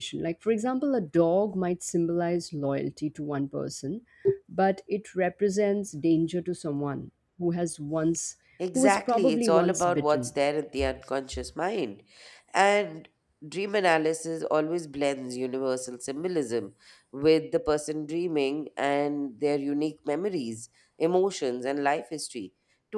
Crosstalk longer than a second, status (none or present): present